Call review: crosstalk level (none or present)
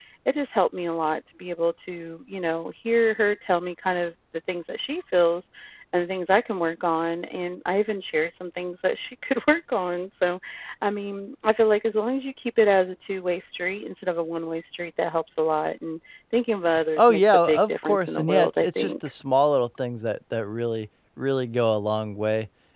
present